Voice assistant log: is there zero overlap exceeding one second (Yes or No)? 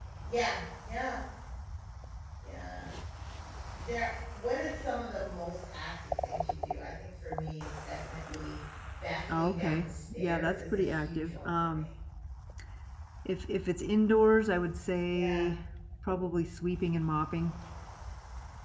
No